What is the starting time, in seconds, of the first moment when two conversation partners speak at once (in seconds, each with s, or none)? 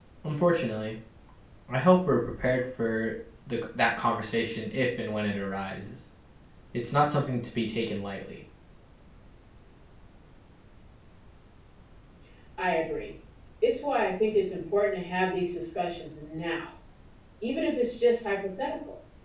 none